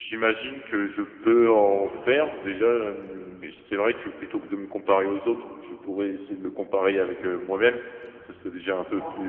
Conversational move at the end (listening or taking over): listening